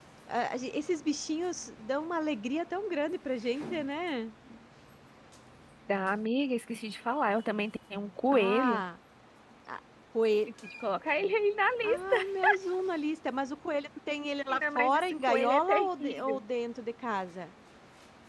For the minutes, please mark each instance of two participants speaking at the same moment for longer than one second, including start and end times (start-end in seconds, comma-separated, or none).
14.5-16.4